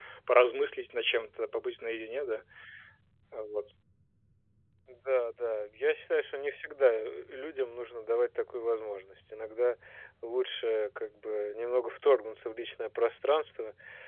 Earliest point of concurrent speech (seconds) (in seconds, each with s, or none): none